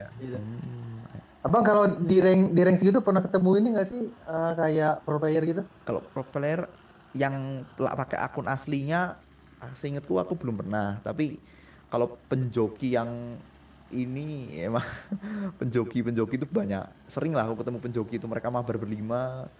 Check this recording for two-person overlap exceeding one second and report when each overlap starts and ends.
none

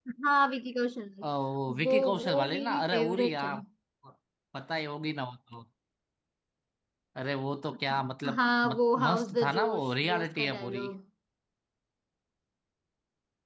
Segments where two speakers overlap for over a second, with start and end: 1.8-3.5, 7.9-10.9

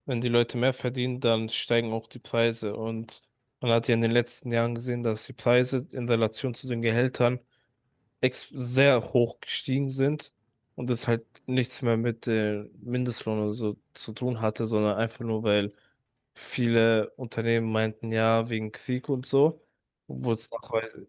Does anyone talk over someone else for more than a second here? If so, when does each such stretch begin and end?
none

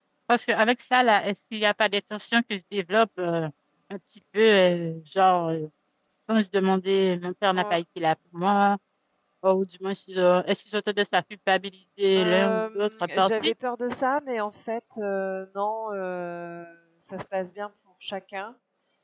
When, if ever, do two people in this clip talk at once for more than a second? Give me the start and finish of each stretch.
12.2-13.5

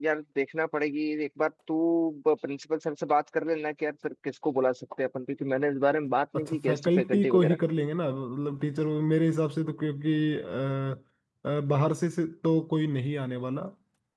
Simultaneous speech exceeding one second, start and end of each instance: 6.4-7.6

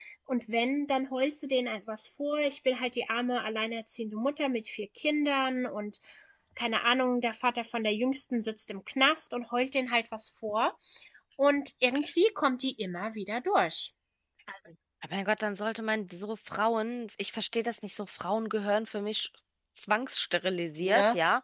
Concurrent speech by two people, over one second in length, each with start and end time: none

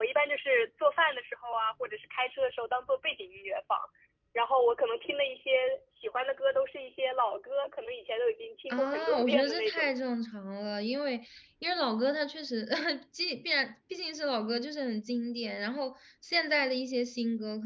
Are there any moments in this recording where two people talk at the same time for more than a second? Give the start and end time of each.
8.7-9.9

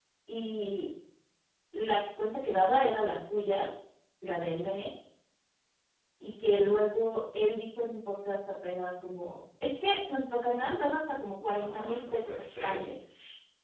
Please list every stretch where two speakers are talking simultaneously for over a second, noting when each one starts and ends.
11.4-12.8

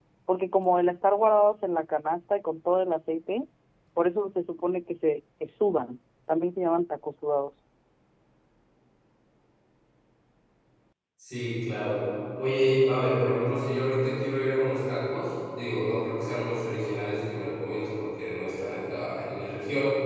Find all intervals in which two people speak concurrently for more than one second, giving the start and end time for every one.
none

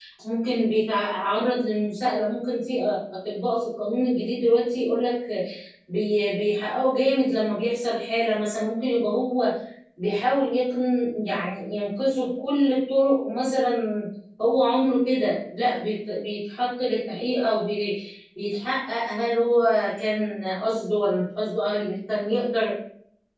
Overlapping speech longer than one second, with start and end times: none

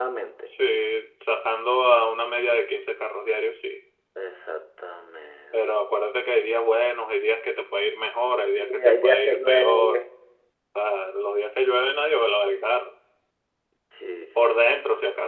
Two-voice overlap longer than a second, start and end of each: 8.6-10.0

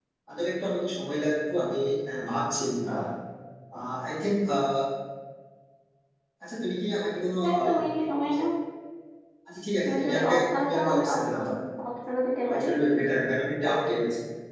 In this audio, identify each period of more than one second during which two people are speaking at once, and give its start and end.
9.8-11.4

